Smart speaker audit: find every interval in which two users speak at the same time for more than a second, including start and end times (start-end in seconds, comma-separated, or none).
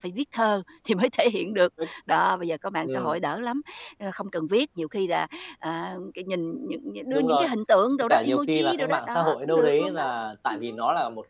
8.0-10.0